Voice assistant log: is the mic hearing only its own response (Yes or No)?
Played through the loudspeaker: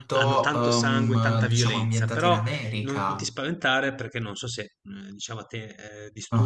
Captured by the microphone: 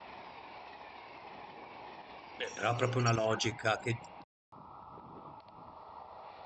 No